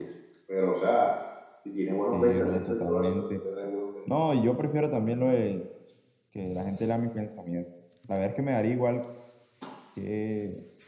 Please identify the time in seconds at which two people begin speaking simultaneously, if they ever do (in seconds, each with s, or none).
2.1 s